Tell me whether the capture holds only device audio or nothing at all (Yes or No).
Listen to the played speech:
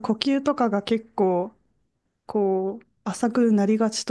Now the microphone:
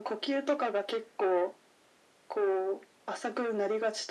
Yes